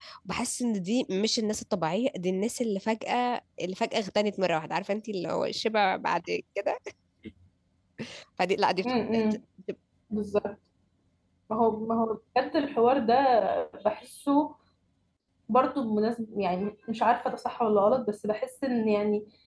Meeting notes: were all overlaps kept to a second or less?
Yes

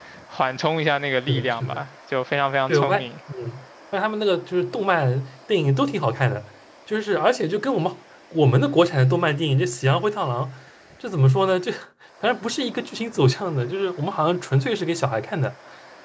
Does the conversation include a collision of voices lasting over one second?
No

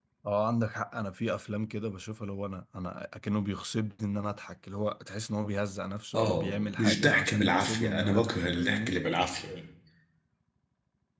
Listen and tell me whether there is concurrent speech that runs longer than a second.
Yes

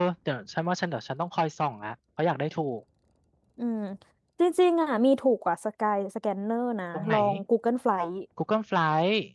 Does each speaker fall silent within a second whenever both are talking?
Yes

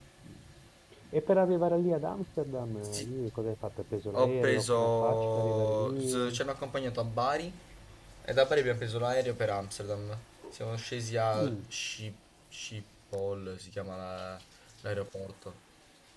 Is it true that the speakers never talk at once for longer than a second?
No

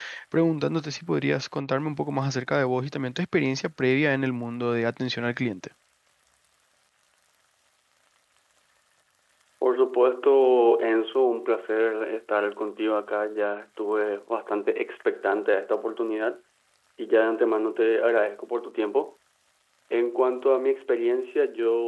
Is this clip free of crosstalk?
Yes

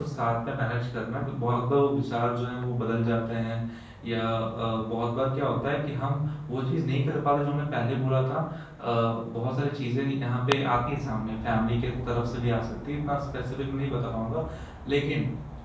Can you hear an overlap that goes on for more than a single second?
No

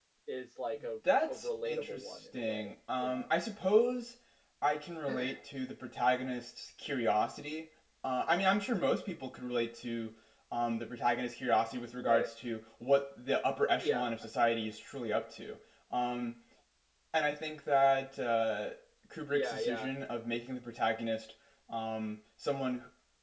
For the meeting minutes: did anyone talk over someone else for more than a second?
Yes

